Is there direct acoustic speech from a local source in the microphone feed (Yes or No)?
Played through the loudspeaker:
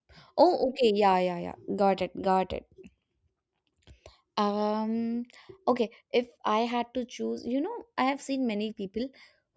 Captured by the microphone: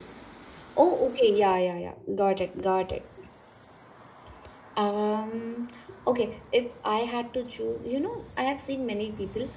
No